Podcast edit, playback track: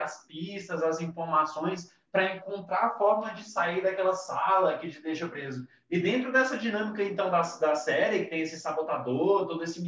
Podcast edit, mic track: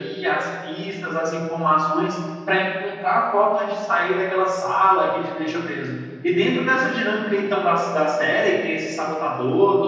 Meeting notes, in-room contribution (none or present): none